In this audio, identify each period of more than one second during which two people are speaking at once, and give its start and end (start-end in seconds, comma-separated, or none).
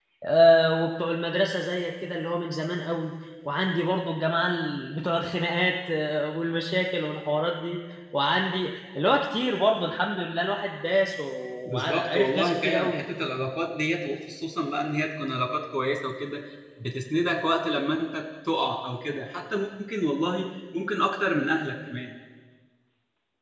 11.7-13.0